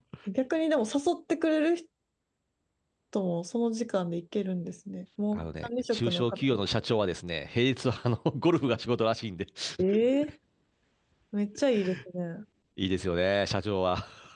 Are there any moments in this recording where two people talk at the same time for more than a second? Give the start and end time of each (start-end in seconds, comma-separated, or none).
5.3-6.6